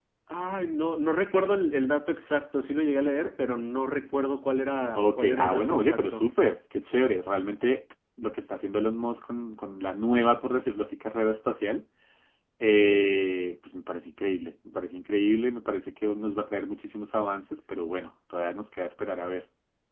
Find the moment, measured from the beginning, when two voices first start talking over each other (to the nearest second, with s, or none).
5 s